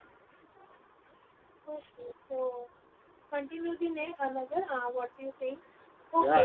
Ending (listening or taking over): taking over